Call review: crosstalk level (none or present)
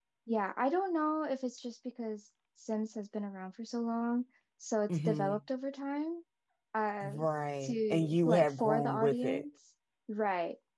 present